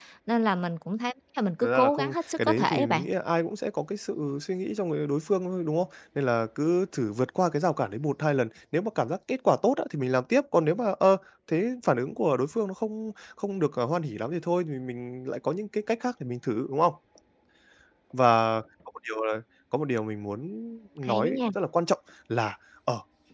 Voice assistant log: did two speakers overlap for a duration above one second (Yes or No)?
Yes